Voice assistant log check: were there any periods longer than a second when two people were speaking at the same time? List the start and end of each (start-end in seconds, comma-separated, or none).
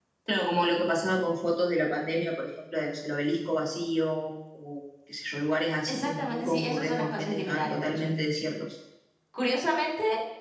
5.9-8.1